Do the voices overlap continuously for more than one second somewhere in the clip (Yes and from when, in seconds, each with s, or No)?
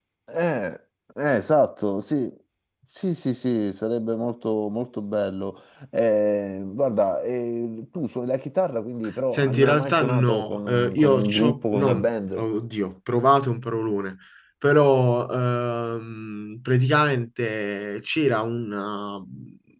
Yes, from 9.3 s